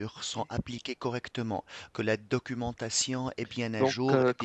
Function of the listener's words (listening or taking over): taking over